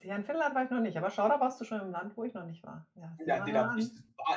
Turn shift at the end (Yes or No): Yes